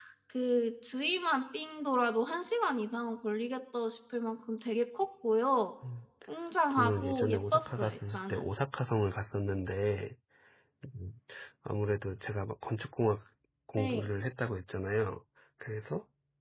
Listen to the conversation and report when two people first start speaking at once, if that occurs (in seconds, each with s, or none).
6.7 s